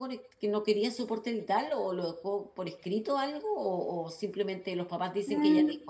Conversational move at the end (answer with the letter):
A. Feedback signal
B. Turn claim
B